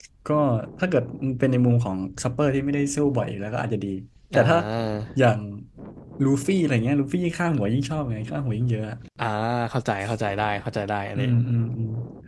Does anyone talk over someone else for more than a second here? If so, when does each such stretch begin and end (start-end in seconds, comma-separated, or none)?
none